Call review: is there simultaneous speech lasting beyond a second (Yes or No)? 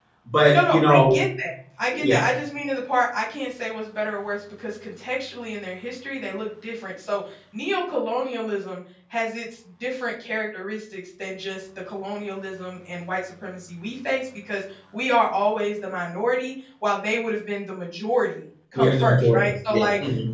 Yes